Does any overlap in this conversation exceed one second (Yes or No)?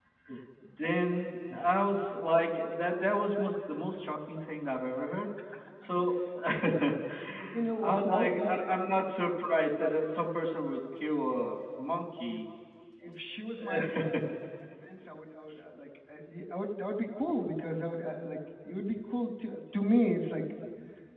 Yes